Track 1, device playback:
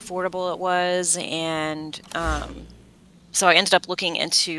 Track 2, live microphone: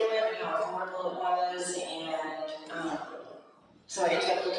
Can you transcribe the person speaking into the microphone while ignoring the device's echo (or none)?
none